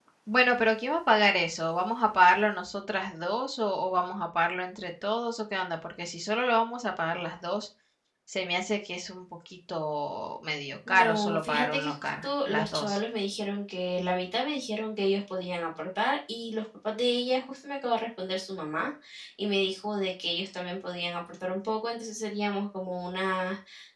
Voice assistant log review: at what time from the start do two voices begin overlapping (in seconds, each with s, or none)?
10.9 s